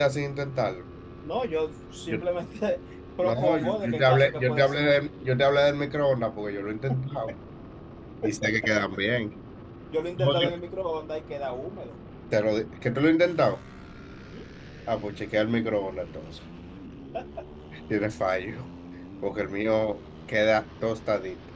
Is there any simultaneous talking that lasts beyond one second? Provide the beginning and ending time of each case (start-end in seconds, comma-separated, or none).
3.2-5.0